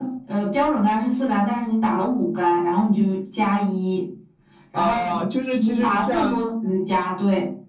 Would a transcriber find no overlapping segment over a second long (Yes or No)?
No